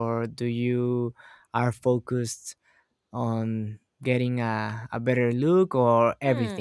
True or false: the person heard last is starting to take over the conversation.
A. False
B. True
B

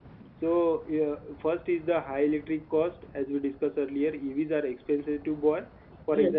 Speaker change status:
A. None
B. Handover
A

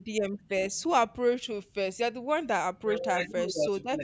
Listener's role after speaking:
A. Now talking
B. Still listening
A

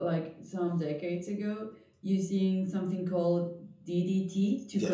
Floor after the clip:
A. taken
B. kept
A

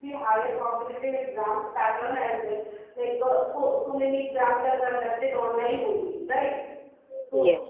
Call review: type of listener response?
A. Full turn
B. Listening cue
B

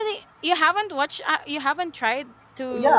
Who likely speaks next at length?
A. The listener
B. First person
A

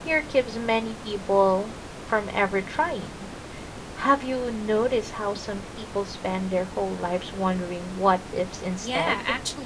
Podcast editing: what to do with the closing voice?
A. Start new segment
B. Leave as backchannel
A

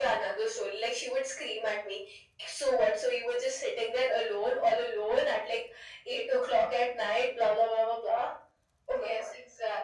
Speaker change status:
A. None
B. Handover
B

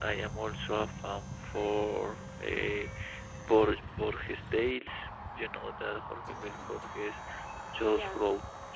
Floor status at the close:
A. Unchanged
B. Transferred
A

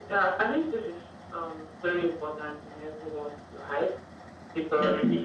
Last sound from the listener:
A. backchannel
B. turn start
A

